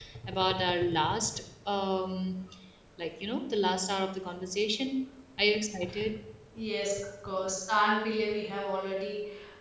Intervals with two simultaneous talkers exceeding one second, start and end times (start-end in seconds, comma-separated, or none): none